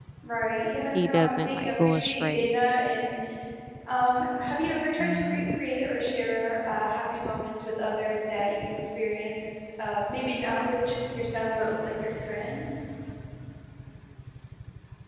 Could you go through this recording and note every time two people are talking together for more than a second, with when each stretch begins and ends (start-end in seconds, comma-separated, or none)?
0.9-2.6